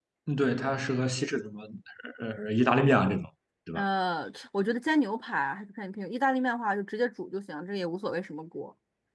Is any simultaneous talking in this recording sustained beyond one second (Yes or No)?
No